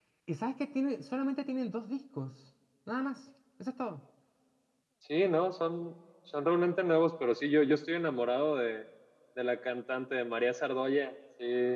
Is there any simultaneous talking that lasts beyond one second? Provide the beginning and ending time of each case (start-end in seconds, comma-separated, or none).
none